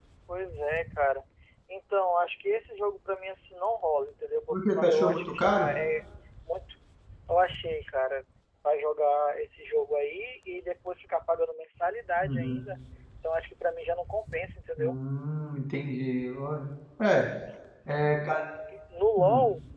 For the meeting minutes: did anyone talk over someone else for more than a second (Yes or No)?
Yes